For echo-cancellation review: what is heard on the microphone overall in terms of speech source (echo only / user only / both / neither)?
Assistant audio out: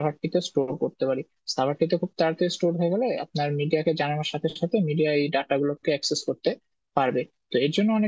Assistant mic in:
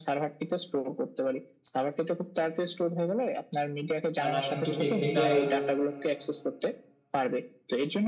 both